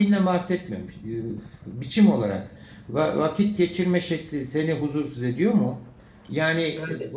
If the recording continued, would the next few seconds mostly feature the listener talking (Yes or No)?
No